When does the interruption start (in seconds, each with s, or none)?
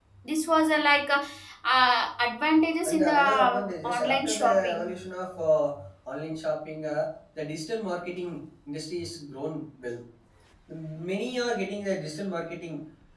2.9 s